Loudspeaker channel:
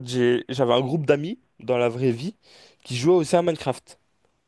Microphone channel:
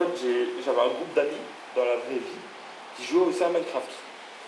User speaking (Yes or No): No